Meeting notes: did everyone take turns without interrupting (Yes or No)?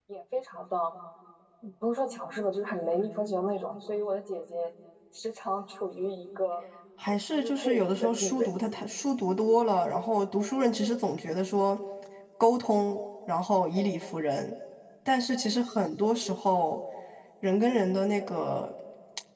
No